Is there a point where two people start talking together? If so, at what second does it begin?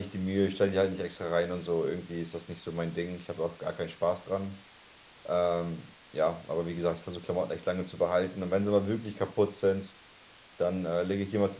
none

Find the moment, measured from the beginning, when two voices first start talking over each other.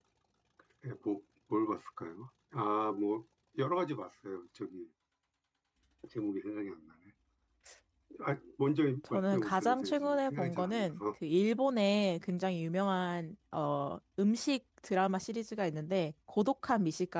9 s

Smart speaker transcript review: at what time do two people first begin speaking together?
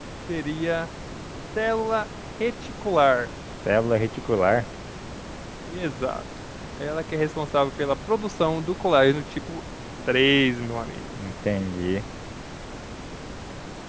none

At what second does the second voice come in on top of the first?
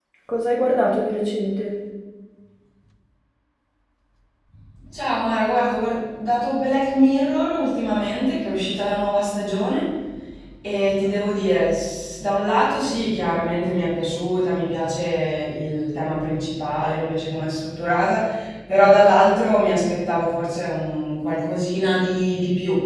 none

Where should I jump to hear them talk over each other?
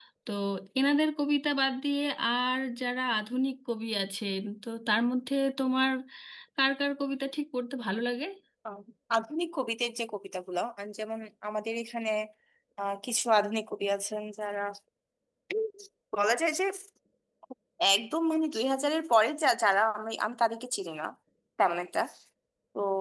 none

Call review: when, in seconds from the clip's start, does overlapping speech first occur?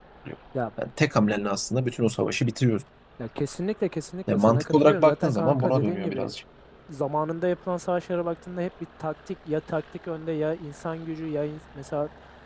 4 s

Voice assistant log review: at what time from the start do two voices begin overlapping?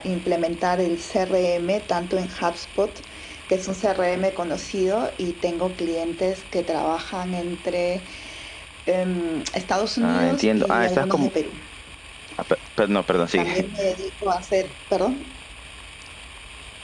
10 s

